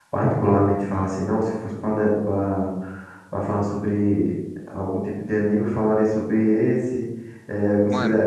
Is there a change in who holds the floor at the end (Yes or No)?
No